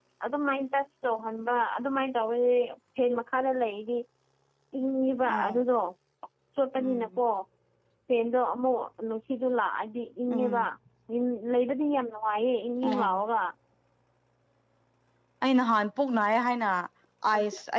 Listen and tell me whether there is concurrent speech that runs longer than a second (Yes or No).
No